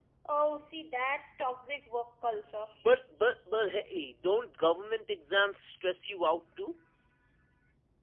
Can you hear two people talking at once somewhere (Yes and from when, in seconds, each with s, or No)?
No